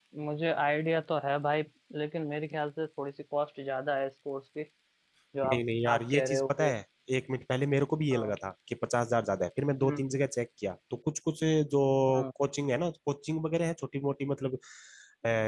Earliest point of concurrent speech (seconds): 5 s

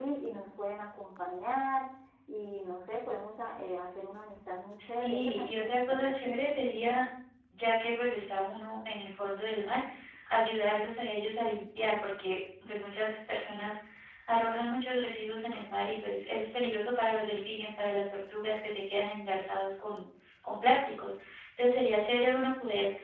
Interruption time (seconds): 5 s

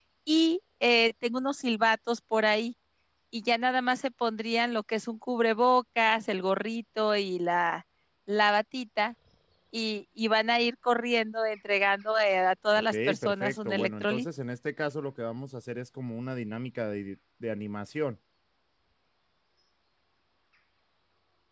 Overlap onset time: 13 s

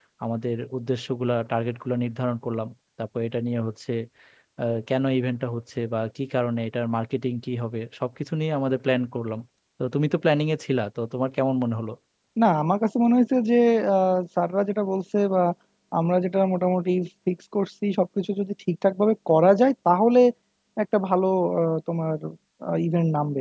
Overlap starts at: none

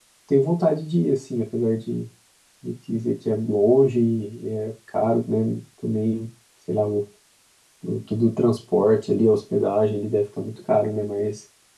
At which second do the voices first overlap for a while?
none

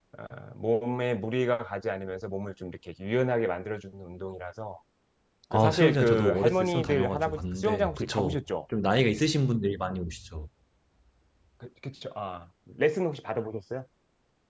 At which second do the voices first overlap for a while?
6 s

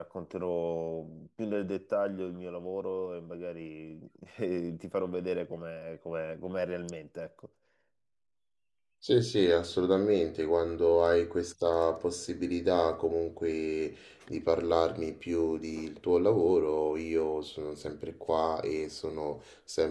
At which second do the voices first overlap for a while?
none

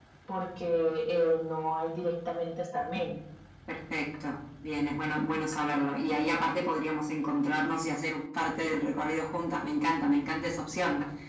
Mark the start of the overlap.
none

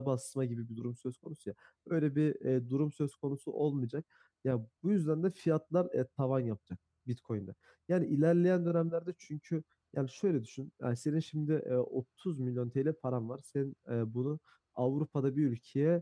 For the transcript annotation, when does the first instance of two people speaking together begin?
none

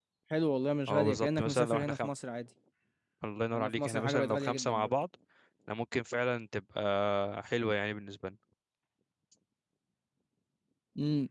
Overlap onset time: 1 s

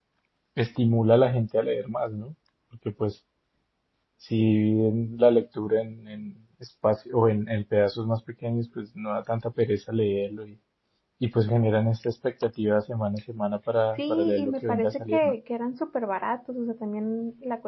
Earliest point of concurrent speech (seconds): 14 s

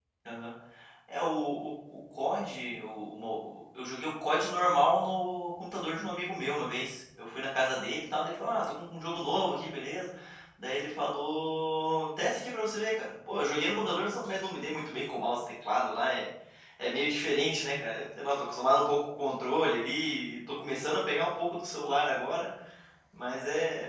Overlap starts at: none

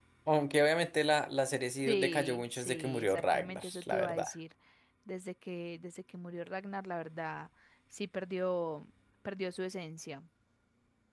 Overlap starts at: 2 s

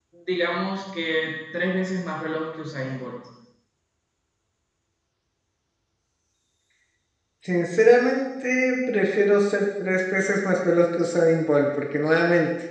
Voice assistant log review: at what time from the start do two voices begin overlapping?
none

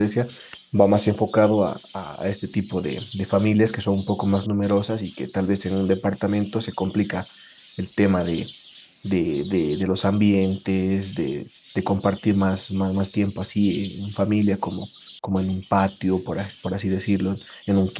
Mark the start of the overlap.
none

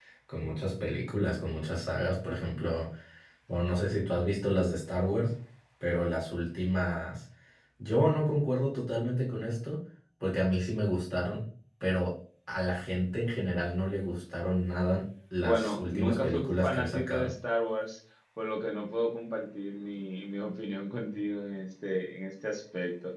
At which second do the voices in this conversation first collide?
15 s

